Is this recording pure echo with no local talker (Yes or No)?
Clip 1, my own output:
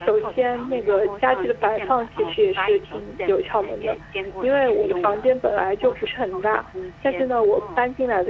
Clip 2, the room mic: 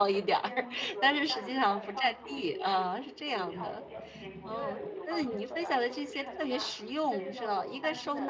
No